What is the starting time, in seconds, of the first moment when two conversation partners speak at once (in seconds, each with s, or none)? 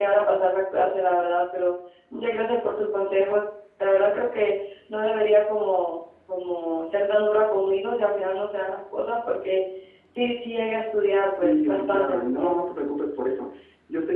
11.4 s